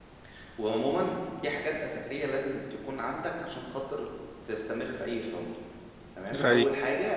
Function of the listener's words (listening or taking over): listening